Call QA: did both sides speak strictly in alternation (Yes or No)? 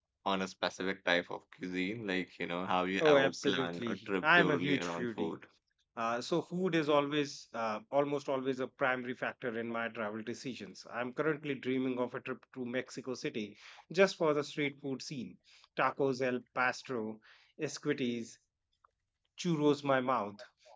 No